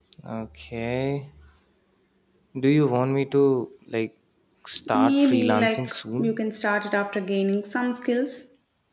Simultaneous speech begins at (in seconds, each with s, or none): 4.9 s